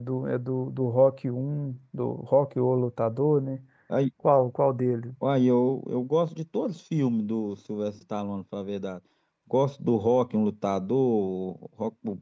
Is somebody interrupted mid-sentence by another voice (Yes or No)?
No